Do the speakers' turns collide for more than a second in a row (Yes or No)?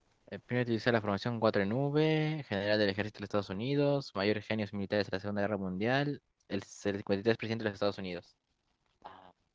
No